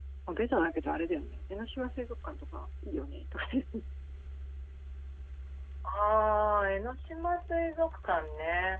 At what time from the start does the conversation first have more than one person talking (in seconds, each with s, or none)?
none